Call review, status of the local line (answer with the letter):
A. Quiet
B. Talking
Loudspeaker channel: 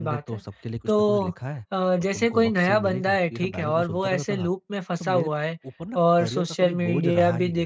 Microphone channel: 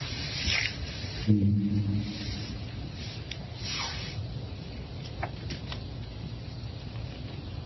B